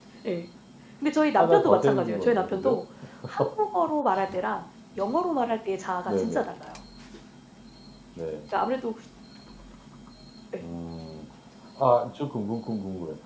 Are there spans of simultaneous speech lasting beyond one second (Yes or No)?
Yes